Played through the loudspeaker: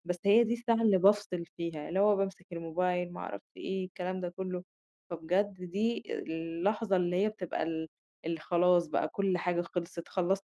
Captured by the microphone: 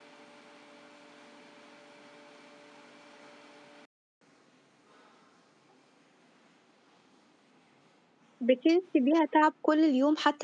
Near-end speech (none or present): present